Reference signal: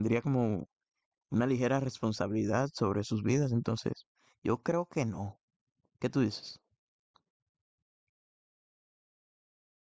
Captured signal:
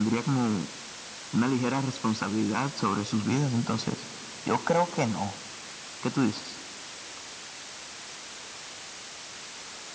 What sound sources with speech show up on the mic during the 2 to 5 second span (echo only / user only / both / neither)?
echo only